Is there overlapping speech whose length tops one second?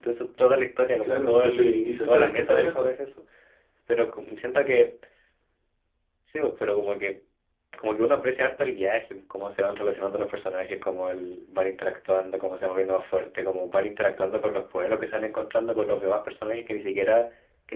Yes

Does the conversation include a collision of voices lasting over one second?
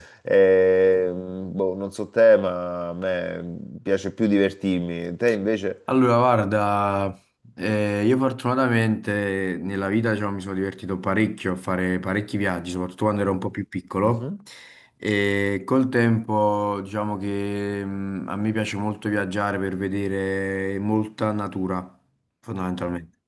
No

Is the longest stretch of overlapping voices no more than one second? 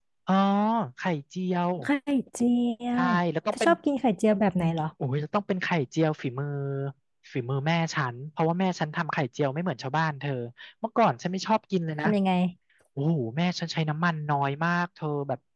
Yes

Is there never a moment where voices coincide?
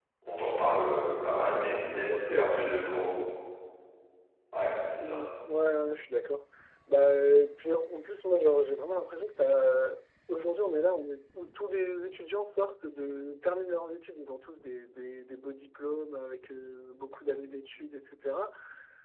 No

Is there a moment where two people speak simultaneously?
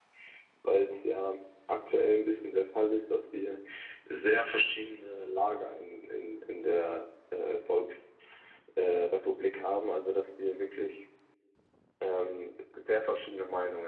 No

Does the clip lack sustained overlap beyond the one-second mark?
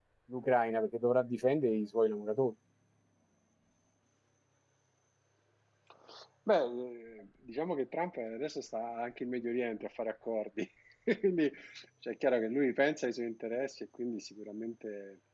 Yes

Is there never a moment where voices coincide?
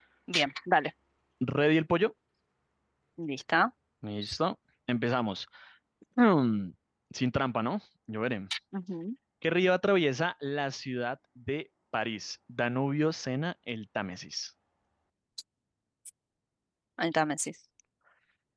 Yes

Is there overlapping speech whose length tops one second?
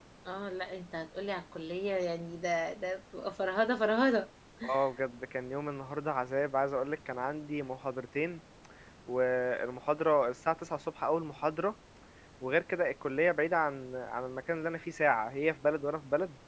No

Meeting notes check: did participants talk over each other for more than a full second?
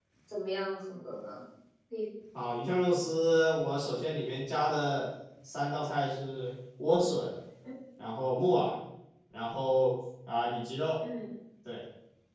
No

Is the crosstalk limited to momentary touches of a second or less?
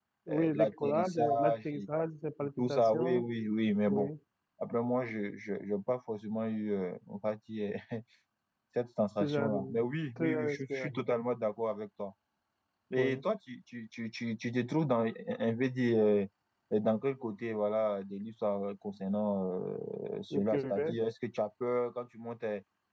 No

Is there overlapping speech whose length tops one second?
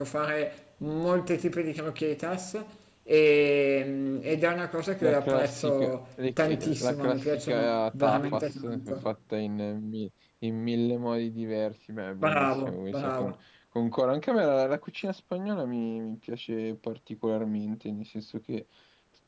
Yes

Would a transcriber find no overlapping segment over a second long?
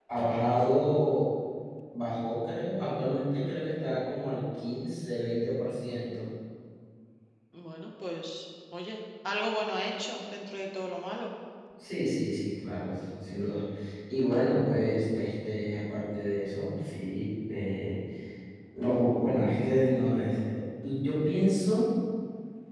Yes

